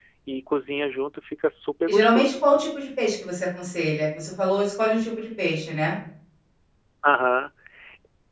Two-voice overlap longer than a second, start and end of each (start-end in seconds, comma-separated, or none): none